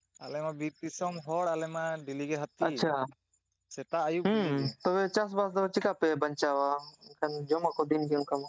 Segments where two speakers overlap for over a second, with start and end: none

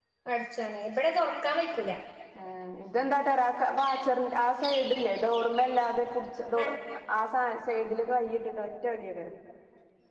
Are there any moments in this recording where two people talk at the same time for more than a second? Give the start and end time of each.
none

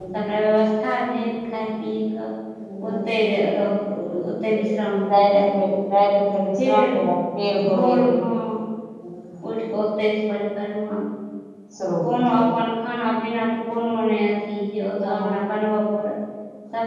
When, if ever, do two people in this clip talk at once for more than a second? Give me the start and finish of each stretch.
4.5-5.8

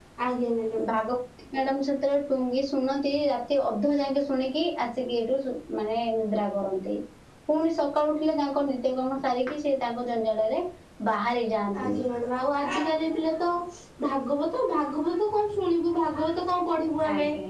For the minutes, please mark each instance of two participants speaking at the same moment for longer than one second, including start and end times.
none

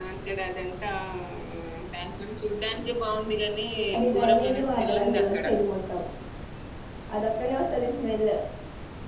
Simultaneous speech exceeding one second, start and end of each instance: 4.2-5.5

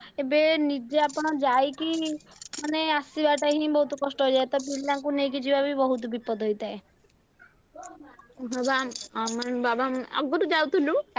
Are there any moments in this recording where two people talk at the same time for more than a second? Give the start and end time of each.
none

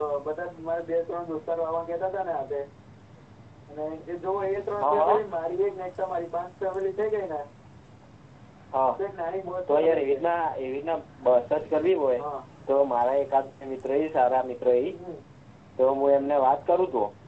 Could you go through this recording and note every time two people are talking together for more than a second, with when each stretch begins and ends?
none

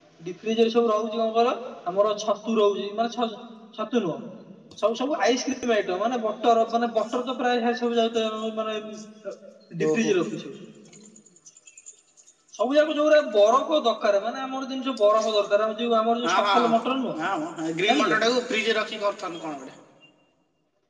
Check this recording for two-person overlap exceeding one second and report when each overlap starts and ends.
none

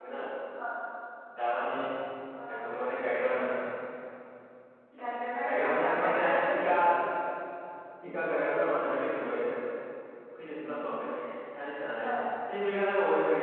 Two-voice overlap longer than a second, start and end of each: 5.4-6.6

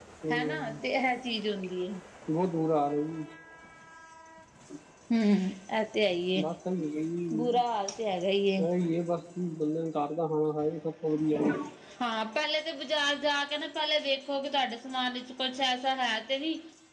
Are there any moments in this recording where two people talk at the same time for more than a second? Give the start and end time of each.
none

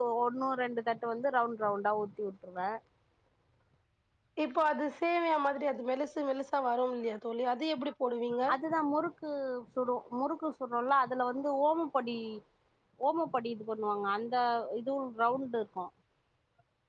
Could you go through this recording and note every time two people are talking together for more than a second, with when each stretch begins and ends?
none

